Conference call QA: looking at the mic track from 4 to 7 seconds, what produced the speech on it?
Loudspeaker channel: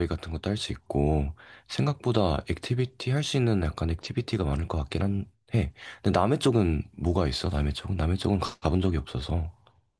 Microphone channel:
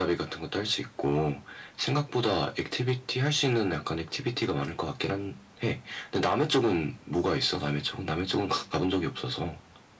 echo only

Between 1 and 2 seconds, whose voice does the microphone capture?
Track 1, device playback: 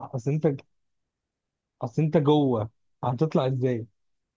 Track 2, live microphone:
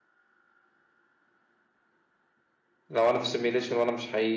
neither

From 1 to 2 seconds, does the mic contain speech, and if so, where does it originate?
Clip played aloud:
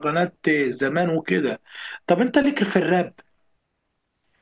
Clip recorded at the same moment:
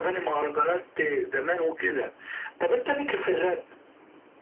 echo only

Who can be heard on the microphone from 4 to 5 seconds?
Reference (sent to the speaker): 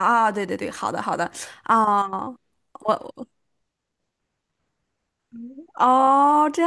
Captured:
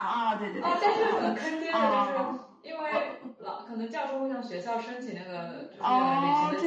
user only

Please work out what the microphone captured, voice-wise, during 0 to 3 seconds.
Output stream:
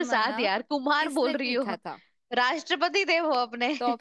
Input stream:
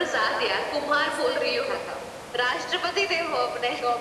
echo only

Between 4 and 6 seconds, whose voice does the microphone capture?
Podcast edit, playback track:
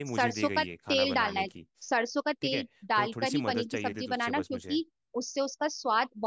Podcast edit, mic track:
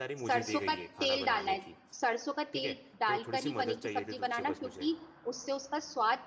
echo only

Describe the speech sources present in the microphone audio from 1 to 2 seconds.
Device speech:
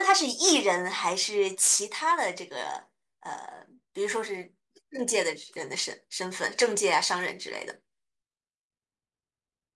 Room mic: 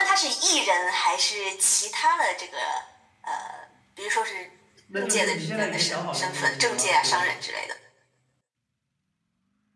echo only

